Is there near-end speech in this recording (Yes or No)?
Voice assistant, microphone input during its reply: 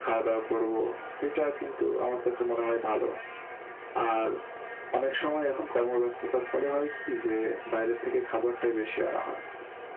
No